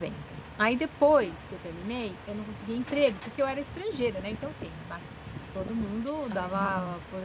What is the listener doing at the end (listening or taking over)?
listening